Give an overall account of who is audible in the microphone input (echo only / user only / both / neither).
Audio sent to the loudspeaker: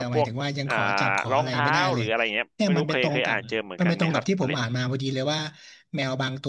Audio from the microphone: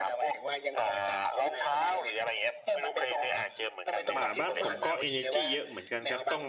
both